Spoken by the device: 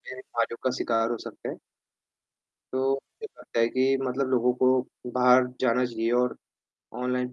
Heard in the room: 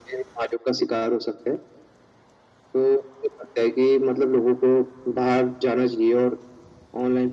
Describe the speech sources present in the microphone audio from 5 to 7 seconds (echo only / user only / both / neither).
echo only